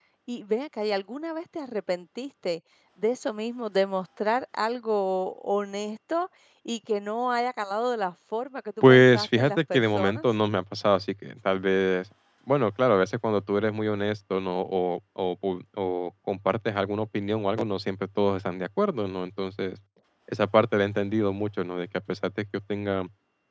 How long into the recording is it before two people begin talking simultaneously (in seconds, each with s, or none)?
8.8 s